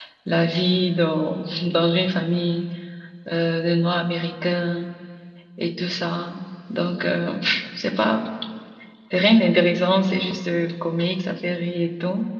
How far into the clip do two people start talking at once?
none

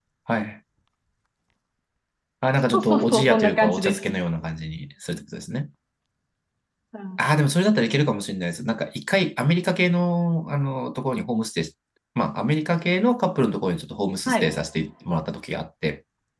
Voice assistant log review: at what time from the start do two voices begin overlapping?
3 s

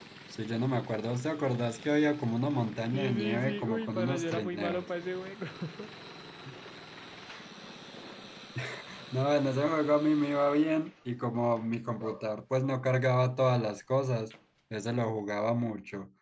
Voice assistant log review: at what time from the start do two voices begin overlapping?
3 s

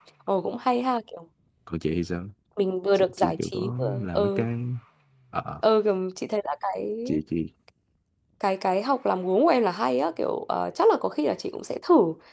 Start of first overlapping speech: 3 s

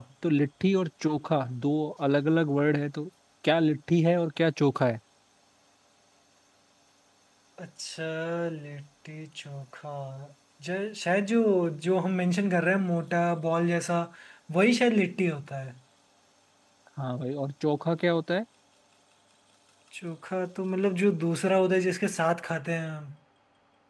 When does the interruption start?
none

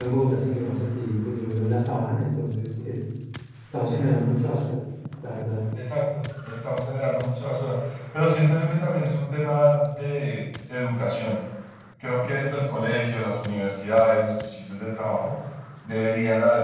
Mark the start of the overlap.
none

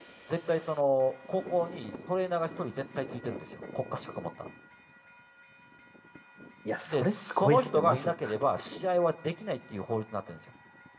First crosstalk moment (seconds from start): 7 s

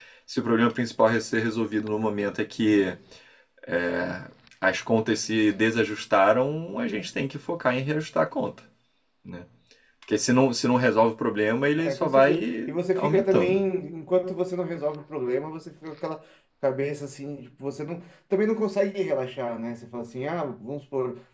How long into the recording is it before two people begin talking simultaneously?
12 s

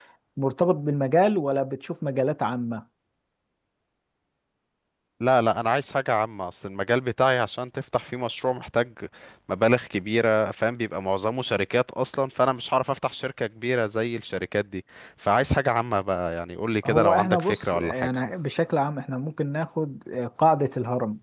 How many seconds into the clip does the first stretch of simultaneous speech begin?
17 s

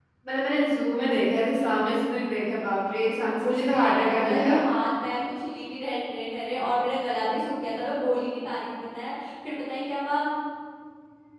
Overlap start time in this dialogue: 3 s

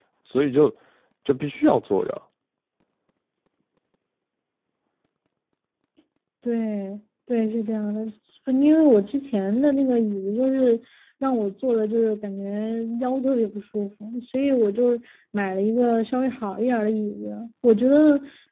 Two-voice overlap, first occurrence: none

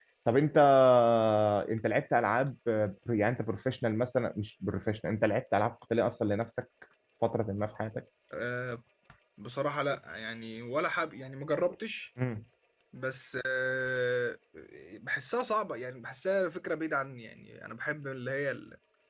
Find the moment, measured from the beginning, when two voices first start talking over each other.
none

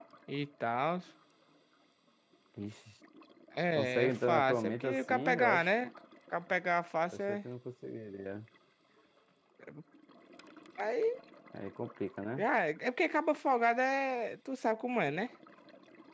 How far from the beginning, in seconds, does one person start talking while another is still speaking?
4 s

